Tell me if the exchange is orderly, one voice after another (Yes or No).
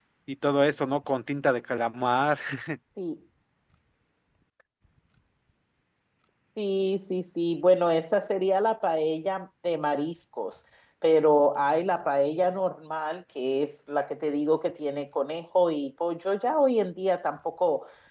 Yes